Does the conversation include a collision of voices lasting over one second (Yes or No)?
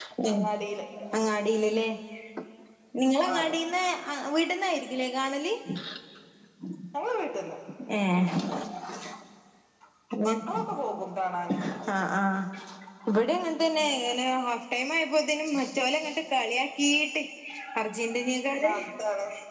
No